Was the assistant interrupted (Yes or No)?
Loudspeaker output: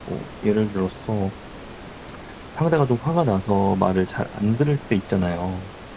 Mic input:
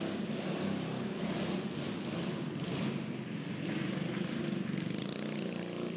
No